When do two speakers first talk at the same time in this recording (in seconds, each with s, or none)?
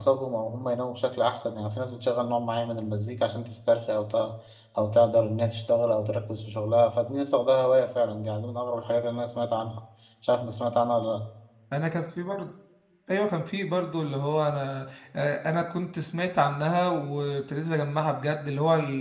none